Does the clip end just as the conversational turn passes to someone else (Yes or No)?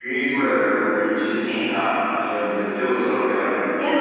Yes